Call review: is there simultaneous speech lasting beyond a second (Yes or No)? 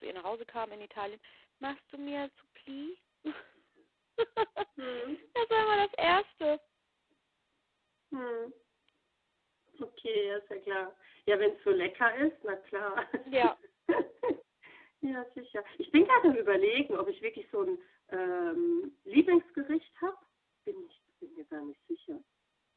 No